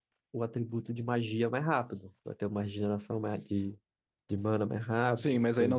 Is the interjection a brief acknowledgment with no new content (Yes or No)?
No